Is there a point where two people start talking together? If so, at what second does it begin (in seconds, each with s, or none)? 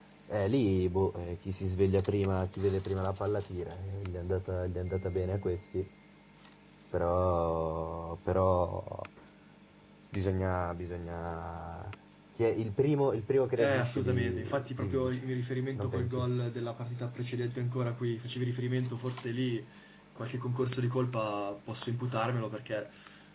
13.6 s